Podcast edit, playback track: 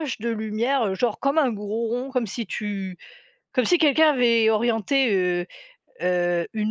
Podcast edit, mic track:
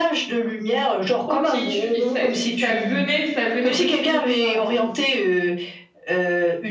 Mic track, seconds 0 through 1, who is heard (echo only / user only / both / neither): echo only